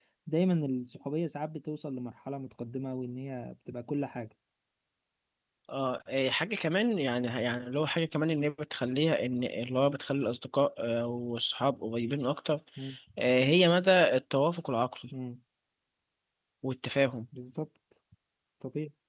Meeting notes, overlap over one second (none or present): none